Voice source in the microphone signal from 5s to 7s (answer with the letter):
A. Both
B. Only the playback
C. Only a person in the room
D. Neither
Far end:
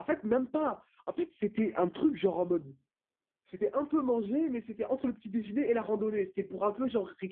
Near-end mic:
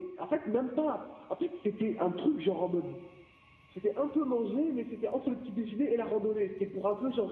B